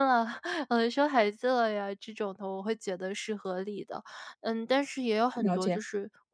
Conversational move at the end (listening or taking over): listening